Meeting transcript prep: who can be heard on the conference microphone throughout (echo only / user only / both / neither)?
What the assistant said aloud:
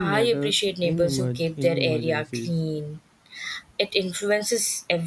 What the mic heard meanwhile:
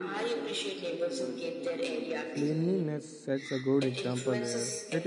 both